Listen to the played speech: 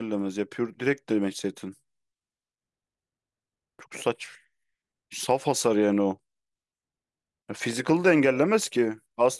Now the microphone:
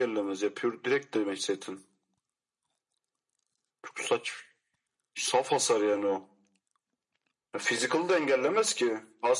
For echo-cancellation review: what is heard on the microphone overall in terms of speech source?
echo only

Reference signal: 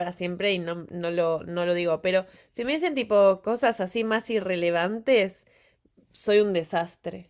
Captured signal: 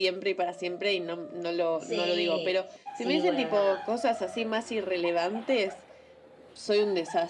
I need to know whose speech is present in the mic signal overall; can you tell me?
both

